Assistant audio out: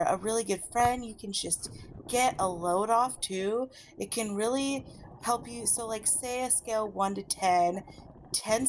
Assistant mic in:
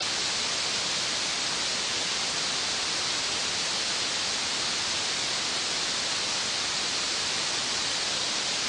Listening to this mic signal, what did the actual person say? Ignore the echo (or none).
none